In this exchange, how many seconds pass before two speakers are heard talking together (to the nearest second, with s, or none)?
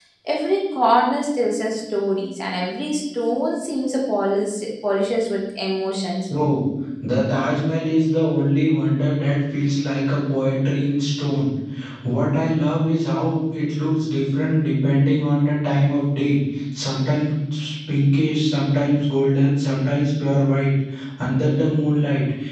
none